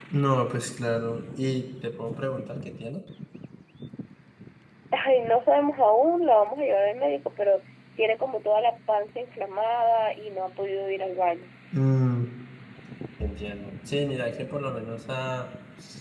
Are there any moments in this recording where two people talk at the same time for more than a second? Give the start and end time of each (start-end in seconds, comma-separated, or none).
none